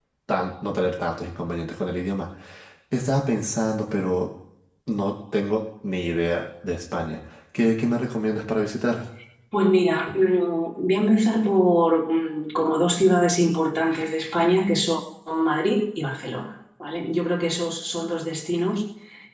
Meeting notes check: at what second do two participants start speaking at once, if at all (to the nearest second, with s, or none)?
none